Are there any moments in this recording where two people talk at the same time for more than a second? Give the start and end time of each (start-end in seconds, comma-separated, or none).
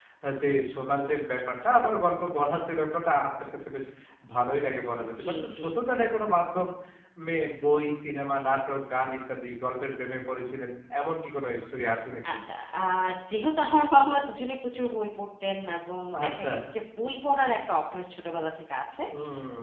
none